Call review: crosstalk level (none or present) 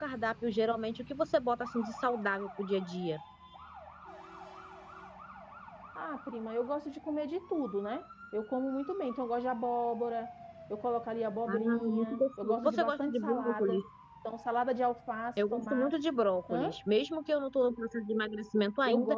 present